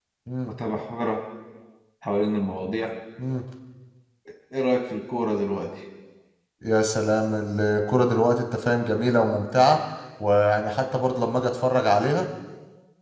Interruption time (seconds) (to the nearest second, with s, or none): none